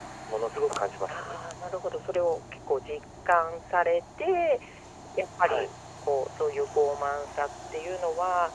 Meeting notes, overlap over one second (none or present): none